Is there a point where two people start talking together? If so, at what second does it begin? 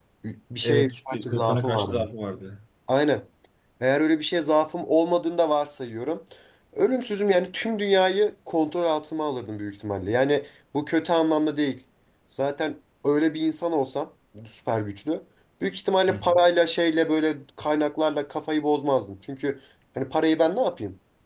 0.6 s

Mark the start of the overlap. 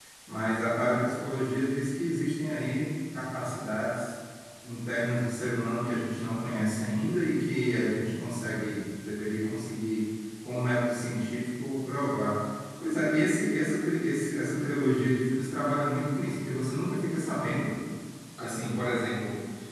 none

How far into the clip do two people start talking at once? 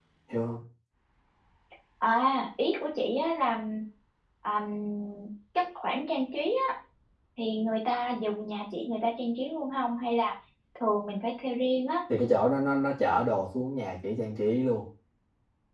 none

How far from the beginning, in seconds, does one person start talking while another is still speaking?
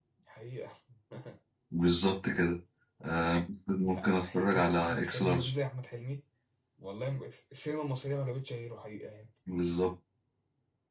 3.8 s

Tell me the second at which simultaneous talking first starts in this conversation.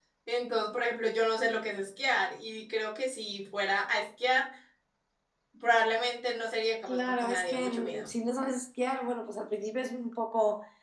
6.9 s

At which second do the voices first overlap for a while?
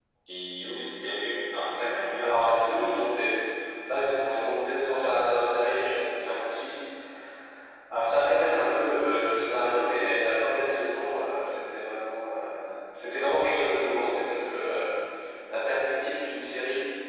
1.8 s

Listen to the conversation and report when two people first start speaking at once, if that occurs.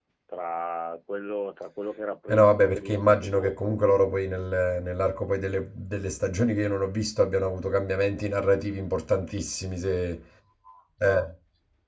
2.3 s

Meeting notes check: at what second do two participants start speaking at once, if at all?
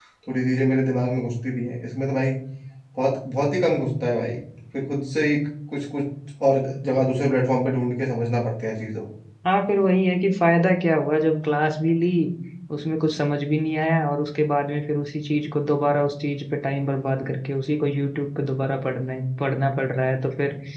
none

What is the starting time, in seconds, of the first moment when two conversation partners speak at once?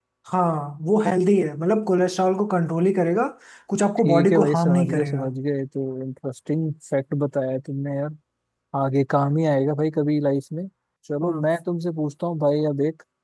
4.0 s

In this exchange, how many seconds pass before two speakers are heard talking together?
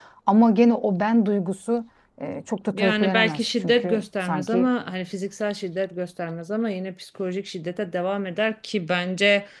2.7 s

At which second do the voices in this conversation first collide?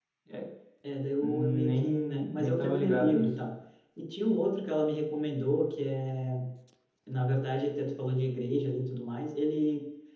1.2 s

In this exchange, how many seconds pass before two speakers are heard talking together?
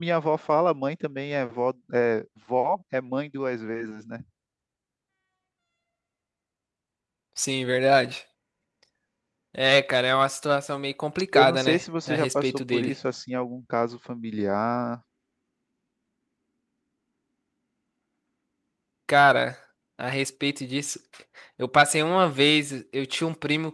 11.3 s

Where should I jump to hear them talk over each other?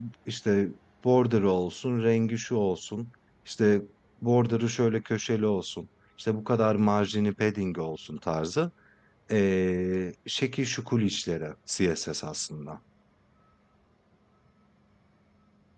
none

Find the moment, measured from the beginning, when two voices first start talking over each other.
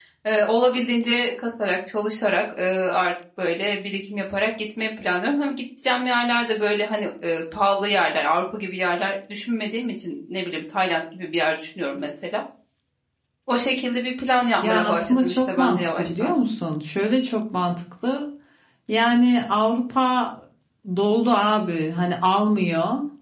14.6 s

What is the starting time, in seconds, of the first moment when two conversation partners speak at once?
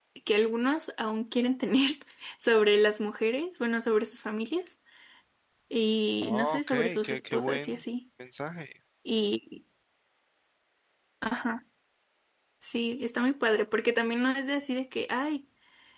6.2 s

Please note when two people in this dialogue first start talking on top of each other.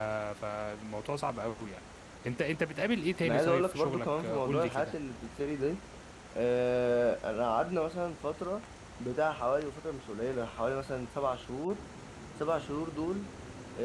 3.2 s

